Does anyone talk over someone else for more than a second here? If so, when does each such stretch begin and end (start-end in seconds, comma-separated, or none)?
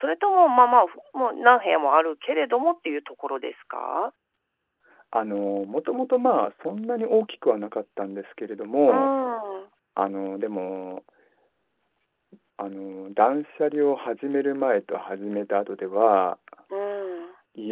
none